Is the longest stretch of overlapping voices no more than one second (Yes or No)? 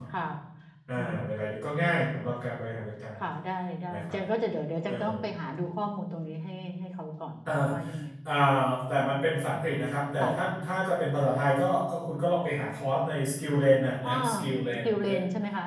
Yes